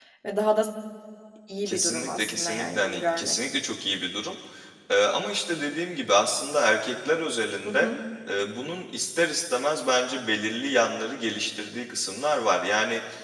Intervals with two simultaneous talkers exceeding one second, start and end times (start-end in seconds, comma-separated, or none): 1.6-3.4